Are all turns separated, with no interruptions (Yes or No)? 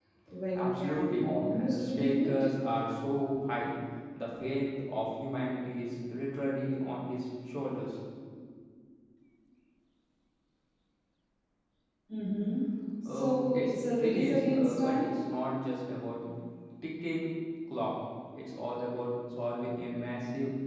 No